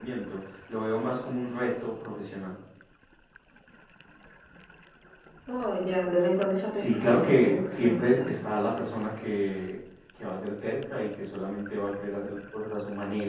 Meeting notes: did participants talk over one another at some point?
Yes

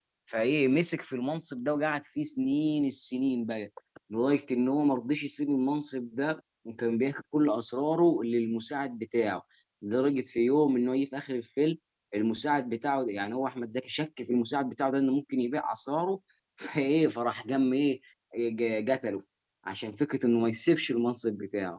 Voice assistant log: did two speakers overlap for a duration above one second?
No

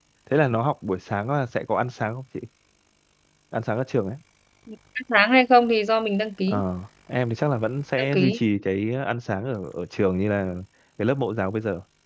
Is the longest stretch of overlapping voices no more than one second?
Yes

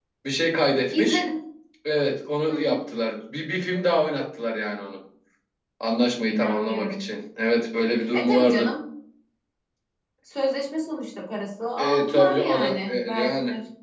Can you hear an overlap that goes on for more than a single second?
Yes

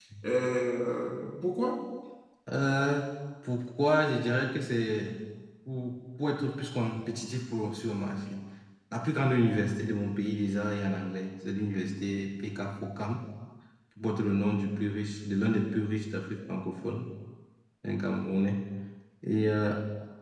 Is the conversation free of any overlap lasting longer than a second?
Yes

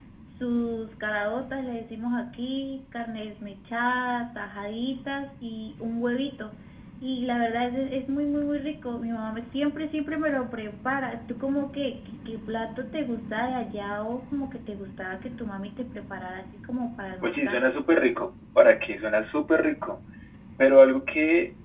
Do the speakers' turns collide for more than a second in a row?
No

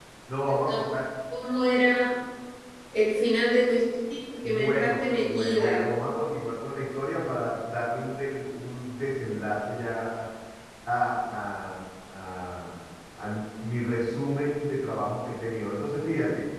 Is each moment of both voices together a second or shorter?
No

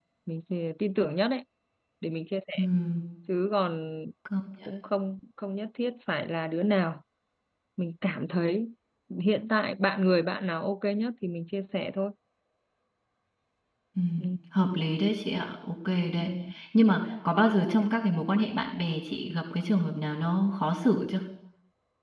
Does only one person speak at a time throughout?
Yes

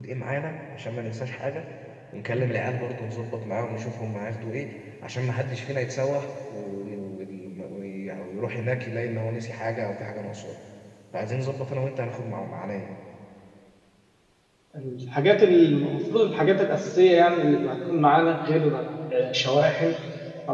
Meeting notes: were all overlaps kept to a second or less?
Yes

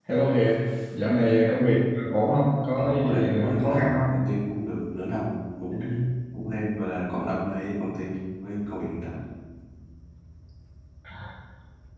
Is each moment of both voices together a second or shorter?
No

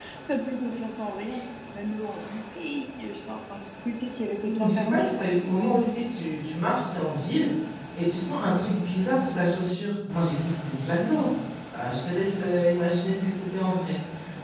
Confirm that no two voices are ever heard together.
No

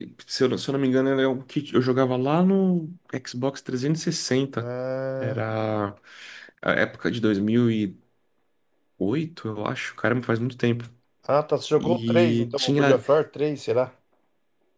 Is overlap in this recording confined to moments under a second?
No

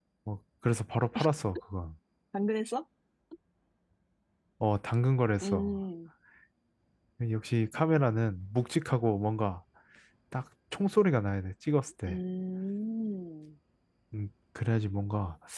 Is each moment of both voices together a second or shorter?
Yes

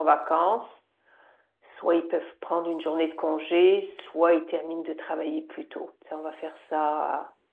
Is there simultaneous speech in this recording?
No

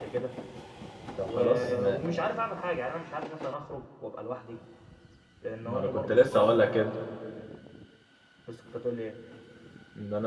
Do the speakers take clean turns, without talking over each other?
No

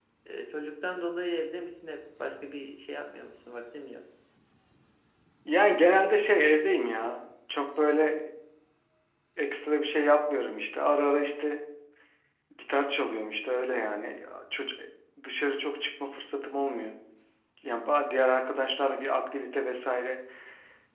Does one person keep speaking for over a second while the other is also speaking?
No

